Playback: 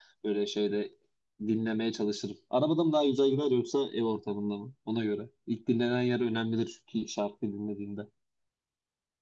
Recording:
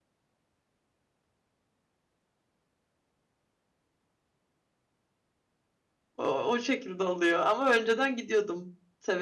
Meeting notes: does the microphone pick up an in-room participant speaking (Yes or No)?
Yes